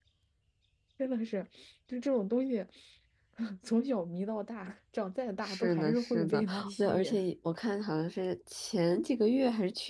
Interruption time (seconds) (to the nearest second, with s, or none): 5 s